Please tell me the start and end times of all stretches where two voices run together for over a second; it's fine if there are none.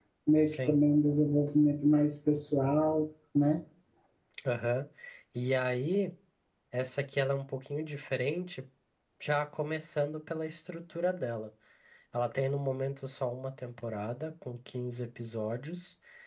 none

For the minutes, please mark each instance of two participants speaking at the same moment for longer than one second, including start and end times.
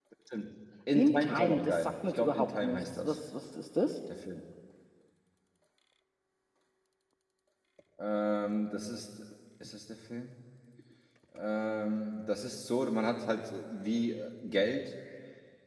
1.0-3.2

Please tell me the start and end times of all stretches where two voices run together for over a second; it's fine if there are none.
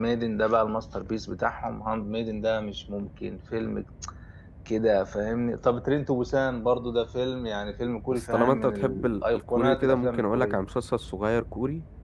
8.1-10.6

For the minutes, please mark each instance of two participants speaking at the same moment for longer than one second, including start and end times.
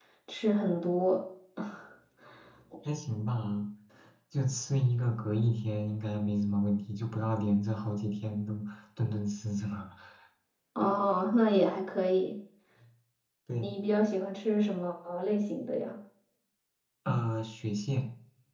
none

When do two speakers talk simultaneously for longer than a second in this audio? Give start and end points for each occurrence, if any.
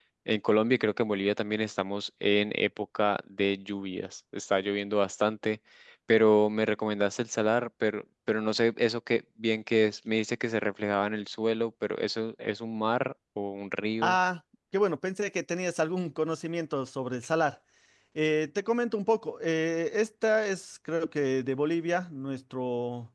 none

